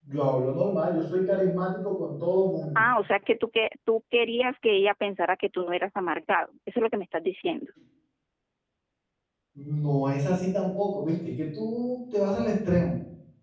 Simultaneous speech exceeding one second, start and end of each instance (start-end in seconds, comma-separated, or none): none